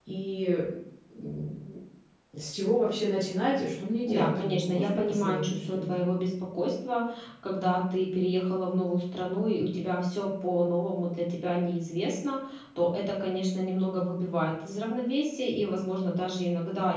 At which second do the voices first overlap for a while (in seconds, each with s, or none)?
4.1 s